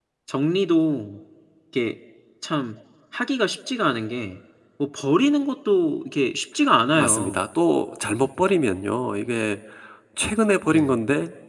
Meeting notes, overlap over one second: none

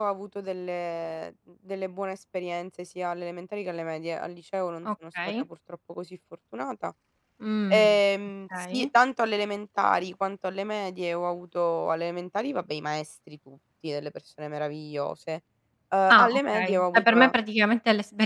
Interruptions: present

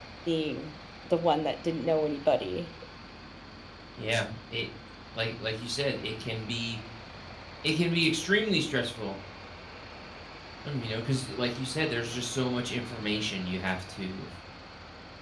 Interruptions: none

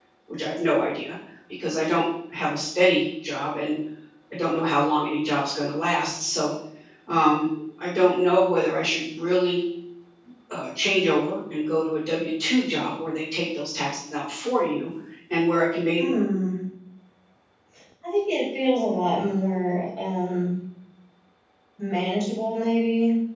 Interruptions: none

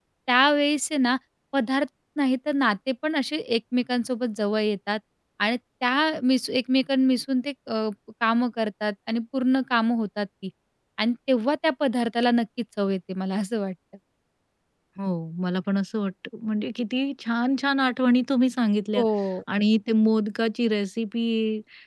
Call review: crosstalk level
none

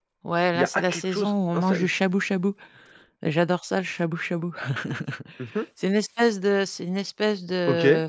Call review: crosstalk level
present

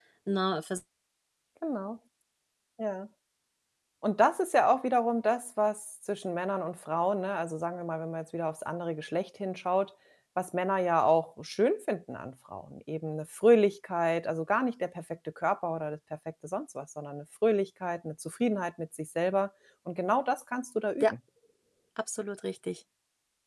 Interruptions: none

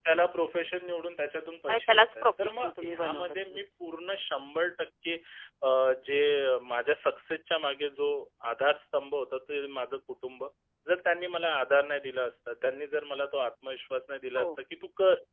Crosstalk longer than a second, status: present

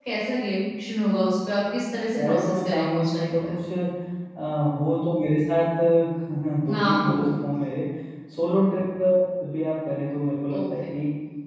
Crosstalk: present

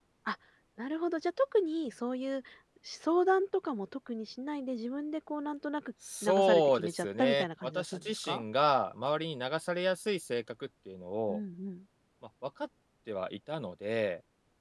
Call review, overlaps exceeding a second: present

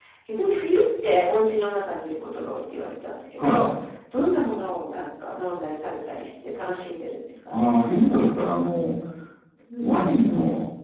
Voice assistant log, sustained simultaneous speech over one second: none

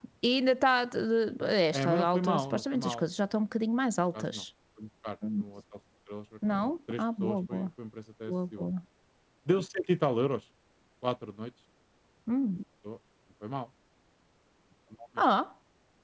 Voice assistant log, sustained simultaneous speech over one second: present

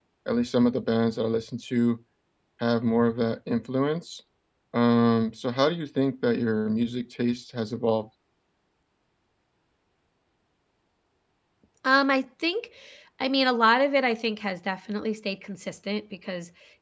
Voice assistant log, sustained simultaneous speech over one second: none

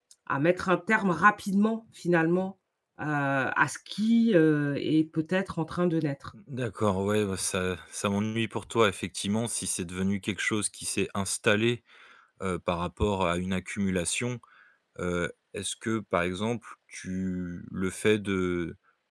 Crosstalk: none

